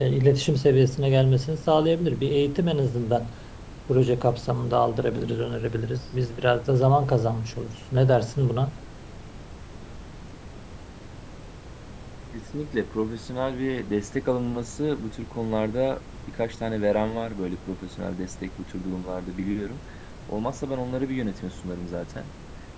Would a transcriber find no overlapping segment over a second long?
Yes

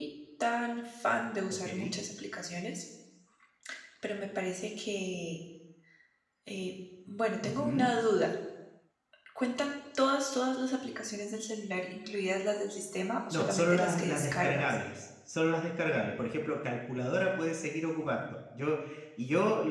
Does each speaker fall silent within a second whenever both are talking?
No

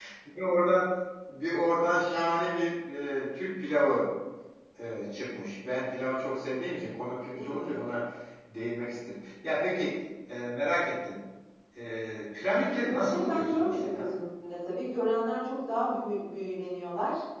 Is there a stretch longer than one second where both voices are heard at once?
Yes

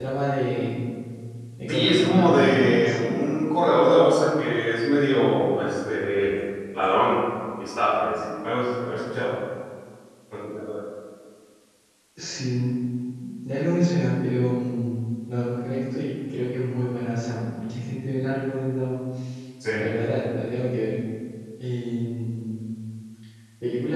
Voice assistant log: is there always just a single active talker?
No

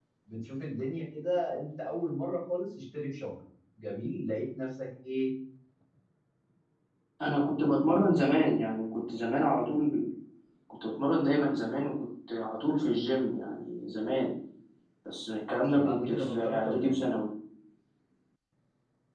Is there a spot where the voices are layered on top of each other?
Yes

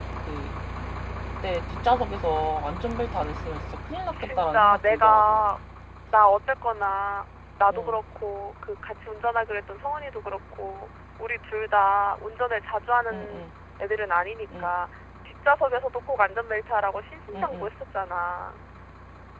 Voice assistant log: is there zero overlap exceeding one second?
No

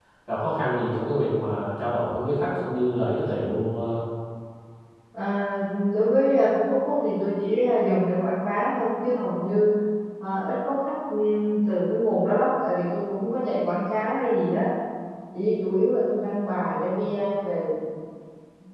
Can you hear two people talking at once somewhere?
No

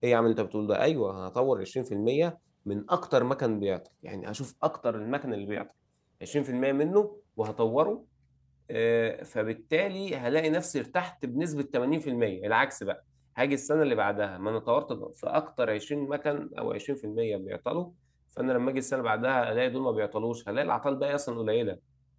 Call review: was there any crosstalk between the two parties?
No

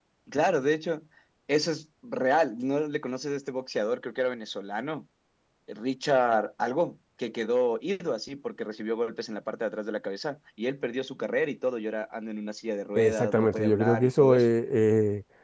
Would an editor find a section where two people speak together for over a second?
Yes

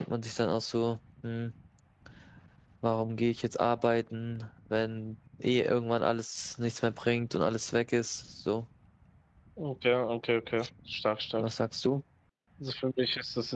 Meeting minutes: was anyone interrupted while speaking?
No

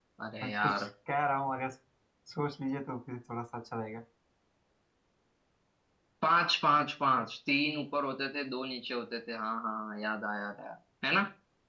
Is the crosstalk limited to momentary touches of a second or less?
Yes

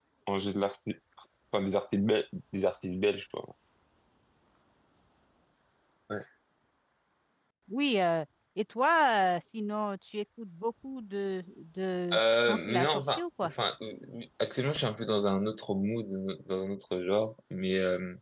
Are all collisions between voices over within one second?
No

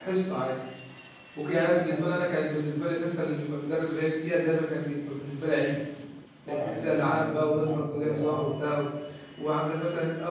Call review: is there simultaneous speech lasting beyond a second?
Yes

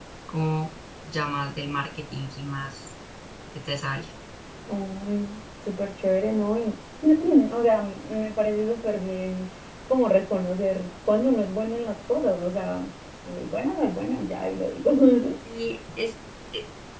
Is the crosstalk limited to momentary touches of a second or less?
Yes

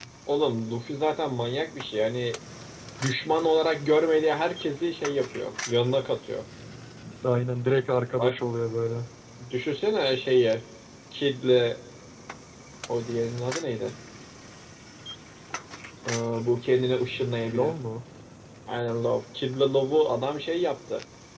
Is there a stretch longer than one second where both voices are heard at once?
No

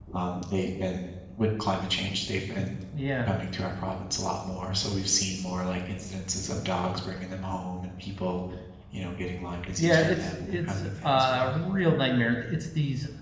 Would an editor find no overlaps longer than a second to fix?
No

